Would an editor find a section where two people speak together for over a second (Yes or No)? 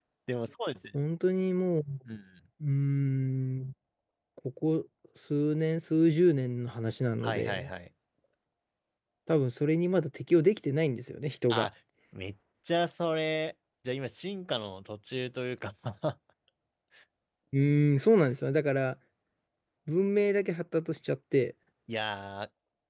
No